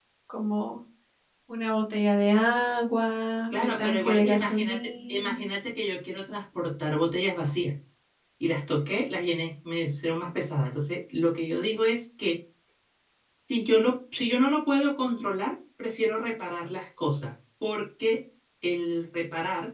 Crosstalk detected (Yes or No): Yes